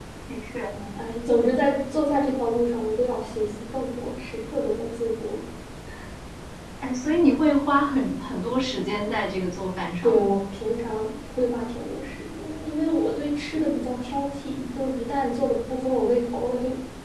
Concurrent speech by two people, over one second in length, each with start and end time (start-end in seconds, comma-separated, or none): none